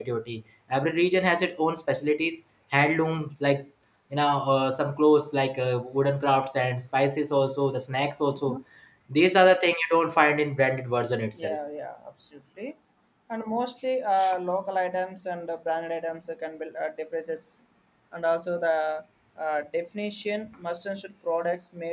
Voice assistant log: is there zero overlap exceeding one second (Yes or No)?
Yes